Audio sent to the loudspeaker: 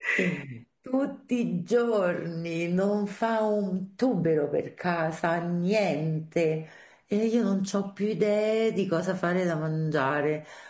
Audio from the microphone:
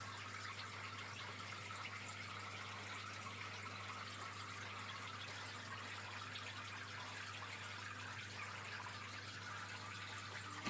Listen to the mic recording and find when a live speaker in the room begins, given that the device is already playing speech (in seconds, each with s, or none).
none